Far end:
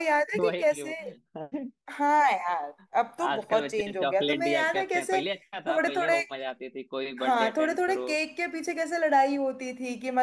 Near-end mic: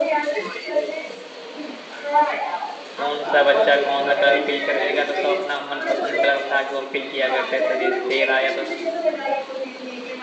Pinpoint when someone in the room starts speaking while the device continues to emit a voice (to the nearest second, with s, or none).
3 s